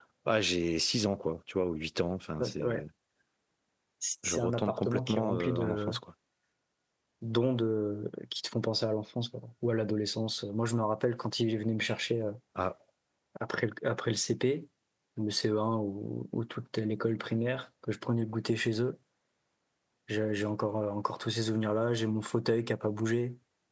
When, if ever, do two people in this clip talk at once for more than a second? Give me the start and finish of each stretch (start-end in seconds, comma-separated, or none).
4.2-5.9